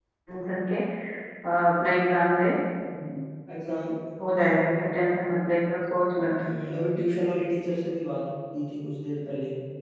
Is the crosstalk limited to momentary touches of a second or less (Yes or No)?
Yes